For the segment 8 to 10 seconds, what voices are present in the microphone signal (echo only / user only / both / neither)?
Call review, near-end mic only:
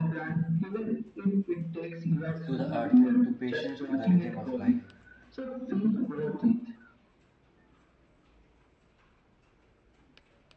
neither